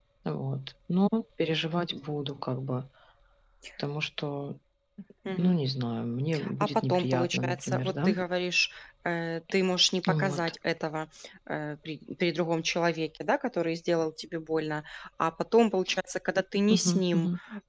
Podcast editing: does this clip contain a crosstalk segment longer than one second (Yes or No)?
Yes